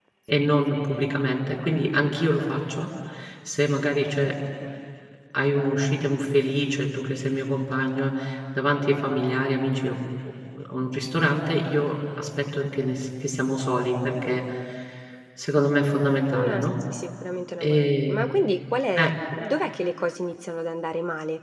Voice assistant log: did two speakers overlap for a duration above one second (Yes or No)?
No